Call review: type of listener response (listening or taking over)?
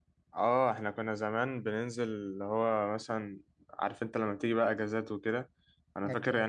listening